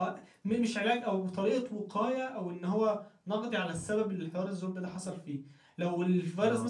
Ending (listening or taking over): listening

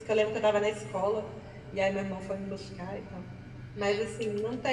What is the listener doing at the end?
listening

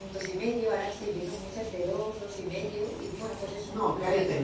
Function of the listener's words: taking over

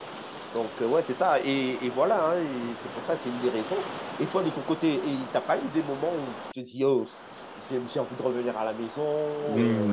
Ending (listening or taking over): taking over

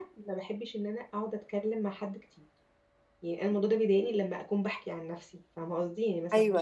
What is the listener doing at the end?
listening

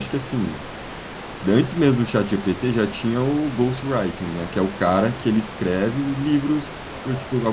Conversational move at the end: listening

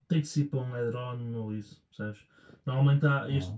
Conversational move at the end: listening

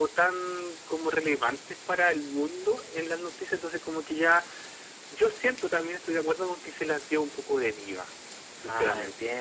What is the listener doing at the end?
taking over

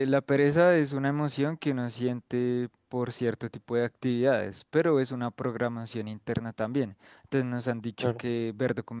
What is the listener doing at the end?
listening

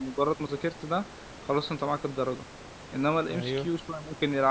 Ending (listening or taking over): listening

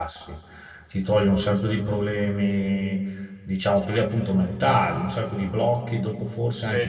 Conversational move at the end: taking over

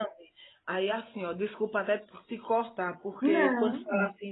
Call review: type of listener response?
listening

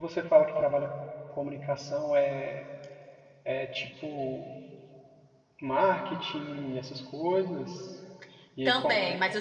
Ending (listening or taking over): taking over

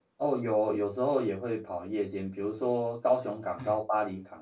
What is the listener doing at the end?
listening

